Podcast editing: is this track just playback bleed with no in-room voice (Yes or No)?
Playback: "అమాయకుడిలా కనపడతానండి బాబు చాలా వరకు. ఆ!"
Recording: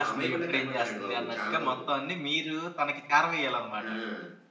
No